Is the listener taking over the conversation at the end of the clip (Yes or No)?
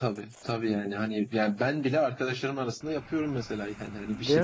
No